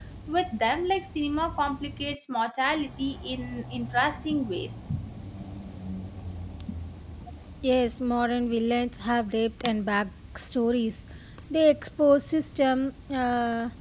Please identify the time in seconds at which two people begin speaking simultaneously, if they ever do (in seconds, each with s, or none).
none